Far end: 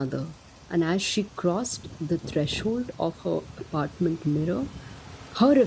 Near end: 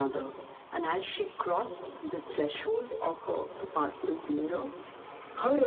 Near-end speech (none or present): none